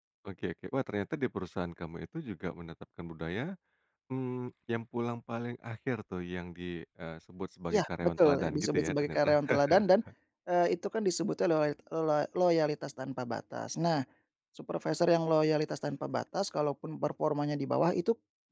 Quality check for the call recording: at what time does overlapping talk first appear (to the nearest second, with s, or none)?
8 s